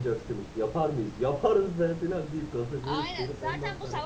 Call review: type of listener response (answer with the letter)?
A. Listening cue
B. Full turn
B